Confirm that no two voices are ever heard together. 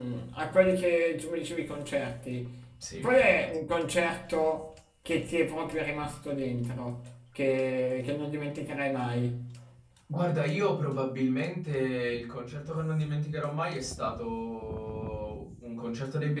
Yes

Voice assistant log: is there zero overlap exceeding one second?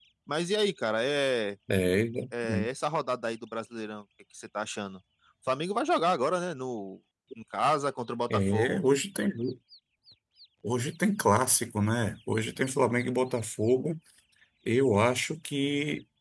Yes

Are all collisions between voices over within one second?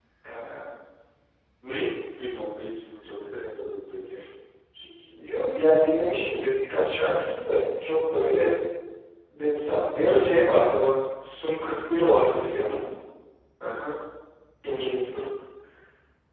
Yes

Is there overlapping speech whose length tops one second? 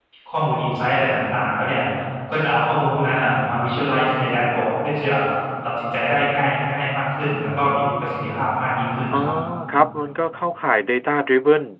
No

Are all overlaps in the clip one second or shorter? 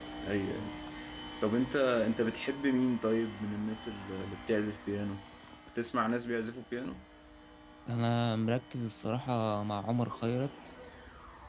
Yes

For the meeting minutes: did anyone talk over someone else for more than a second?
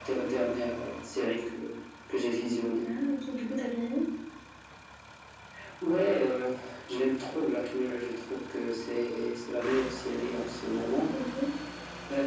No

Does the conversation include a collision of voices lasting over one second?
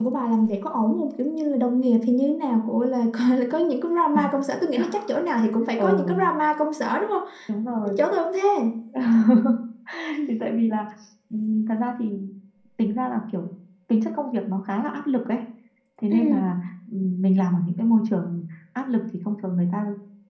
No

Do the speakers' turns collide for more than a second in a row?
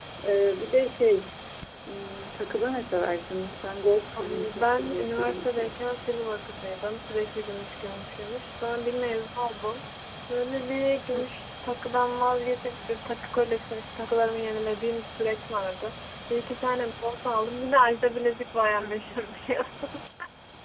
Yes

